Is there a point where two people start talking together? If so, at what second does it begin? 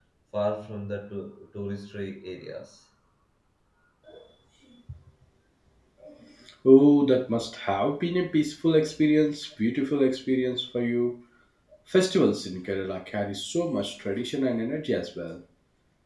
none

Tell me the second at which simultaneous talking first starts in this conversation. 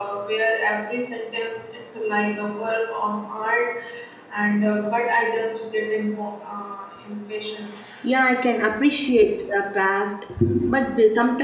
none

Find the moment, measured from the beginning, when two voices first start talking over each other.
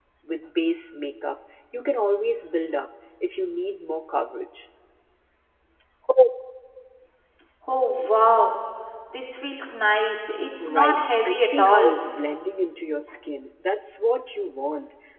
11 s

